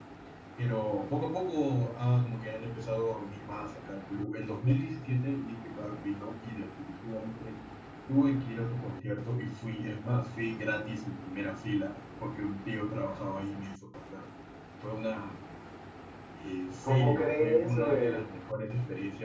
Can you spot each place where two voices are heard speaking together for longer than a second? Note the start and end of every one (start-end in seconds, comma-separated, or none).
16.8-18.2